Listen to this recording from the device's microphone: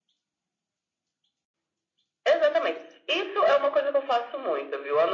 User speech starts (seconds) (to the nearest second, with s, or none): none